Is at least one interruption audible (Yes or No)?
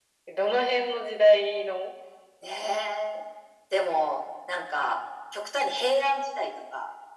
No